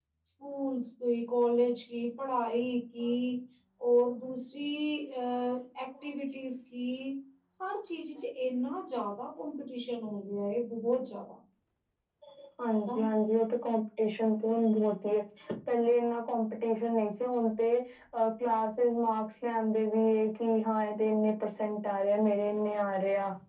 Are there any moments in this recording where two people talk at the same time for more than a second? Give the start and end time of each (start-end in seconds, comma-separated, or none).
none